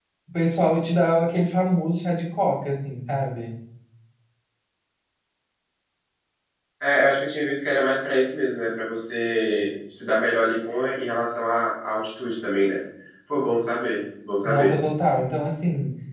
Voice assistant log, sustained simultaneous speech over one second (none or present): none